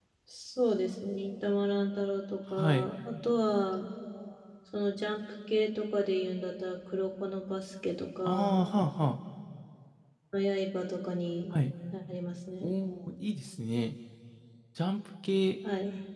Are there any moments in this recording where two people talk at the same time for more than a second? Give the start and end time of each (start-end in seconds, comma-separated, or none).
none